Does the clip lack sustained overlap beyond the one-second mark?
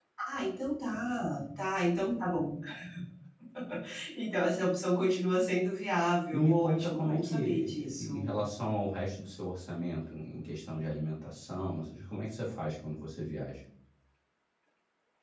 No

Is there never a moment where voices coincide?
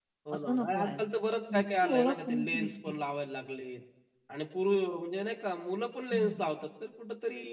No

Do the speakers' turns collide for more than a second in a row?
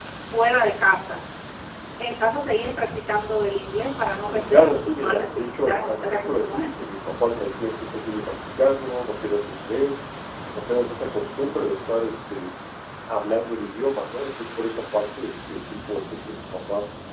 Yes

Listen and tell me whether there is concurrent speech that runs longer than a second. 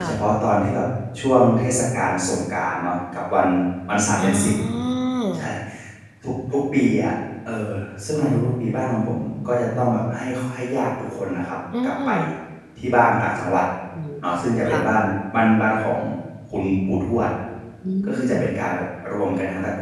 No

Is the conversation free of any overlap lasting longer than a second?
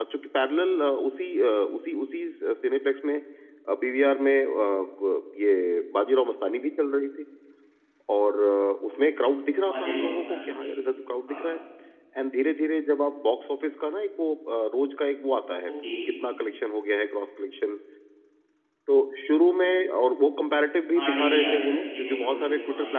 No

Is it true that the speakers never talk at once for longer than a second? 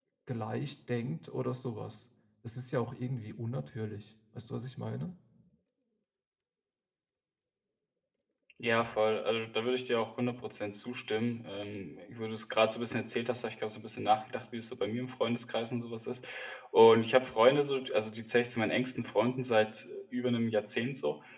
Yes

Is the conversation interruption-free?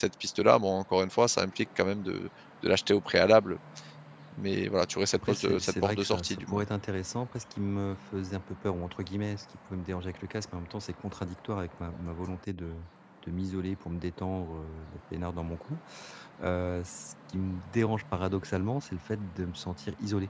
No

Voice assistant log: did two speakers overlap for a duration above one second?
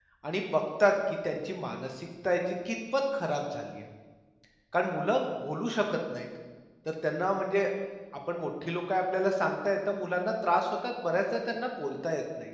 No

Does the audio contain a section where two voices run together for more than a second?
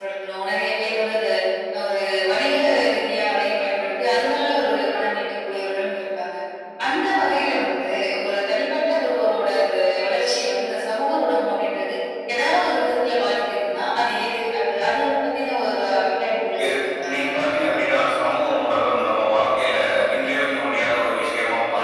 Yes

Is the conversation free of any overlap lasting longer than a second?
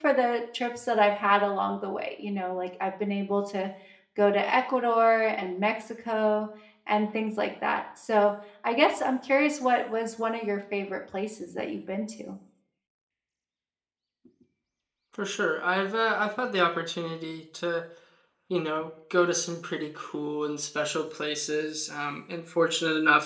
Yes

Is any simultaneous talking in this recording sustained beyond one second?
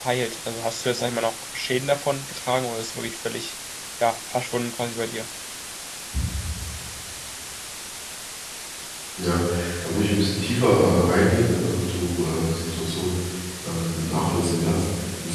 No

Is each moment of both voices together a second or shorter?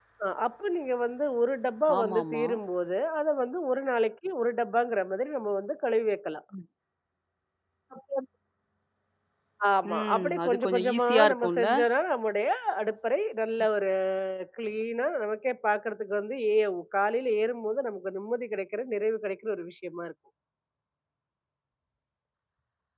No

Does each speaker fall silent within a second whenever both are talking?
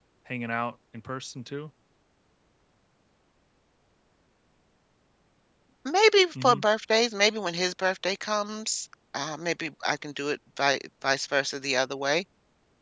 Yes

